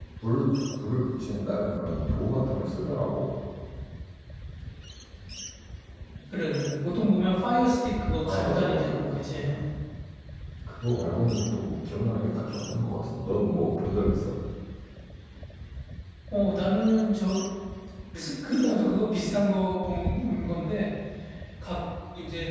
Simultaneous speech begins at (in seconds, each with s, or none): 8.2 s